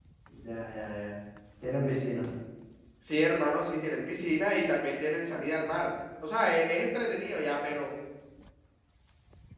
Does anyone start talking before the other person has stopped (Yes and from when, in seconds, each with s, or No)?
No